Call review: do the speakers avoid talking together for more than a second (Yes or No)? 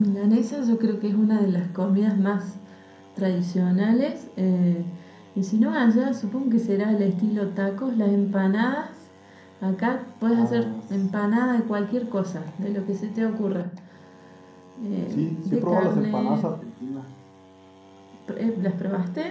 No